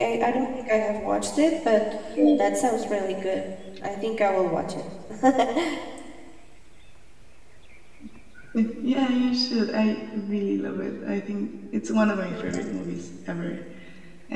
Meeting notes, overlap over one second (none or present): none